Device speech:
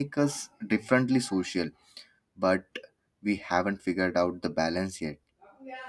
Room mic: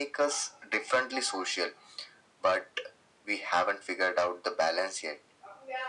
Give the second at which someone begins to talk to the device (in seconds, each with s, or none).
none